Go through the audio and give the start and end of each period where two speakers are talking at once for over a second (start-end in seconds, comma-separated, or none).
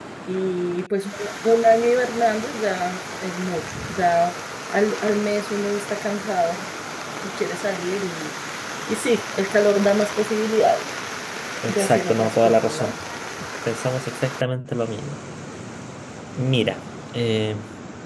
11.7-12.9